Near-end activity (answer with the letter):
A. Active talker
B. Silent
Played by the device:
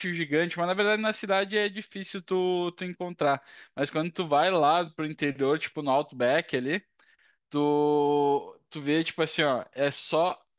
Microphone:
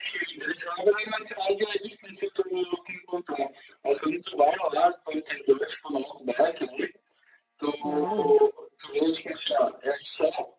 A